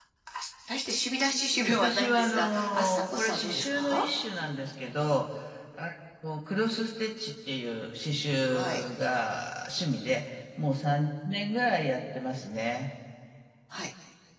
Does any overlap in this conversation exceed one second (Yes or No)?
Yes